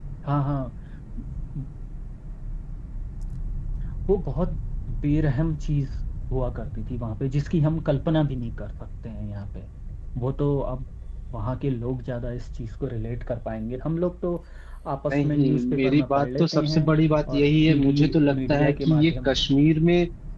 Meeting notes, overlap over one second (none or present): present